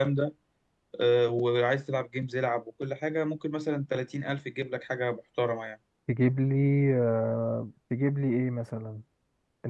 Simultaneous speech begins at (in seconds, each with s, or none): none